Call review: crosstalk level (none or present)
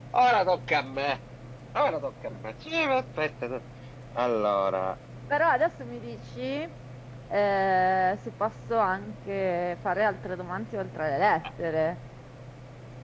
none